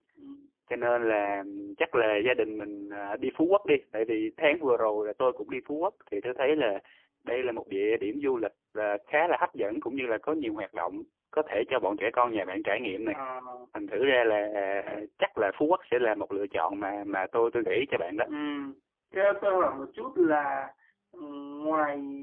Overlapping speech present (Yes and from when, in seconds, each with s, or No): No